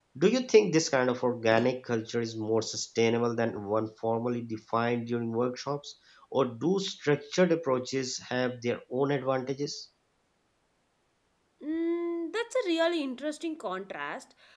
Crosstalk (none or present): none